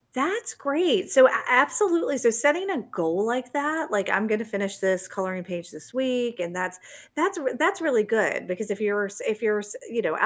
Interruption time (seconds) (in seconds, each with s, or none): none